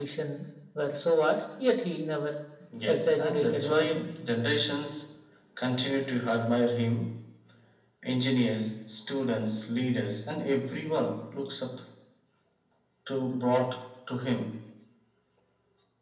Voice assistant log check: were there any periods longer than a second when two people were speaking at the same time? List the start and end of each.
2.9-4.1

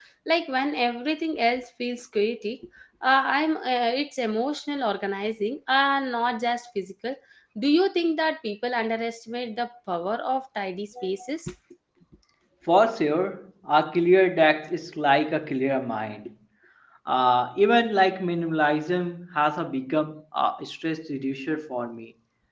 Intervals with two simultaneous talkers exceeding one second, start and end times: none

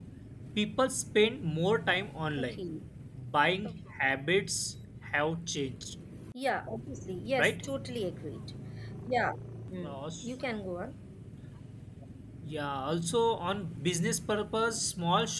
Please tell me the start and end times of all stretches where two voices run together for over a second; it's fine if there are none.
none

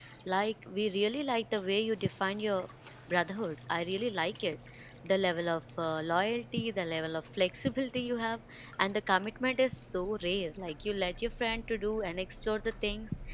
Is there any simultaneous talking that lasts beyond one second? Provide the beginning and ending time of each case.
none

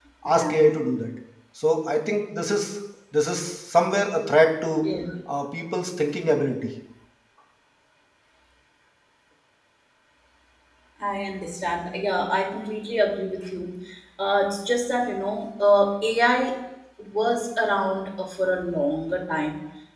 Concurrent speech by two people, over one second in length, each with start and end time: none

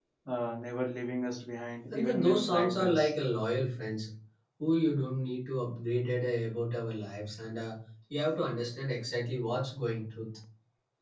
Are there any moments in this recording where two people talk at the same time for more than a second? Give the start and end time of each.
1.9-3.1

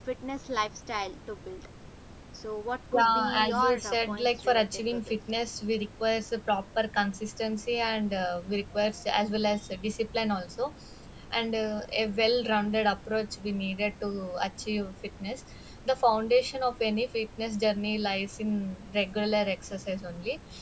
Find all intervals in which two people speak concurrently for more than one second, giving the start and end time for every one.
2.9-5.2

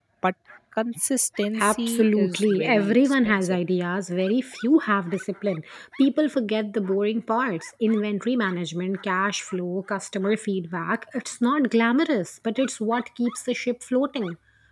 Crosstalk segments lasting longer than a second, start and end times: 1.6-3.6

